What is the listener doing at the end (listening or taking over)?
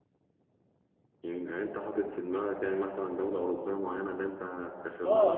taking over